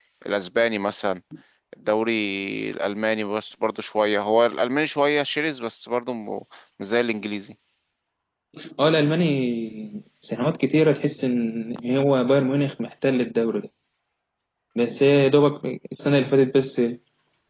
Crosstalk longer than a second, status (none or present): none